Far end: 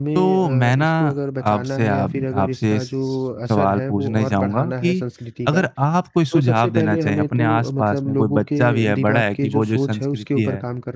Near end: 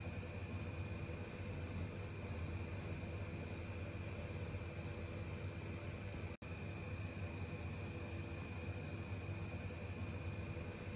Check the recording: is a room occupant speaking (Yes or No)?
No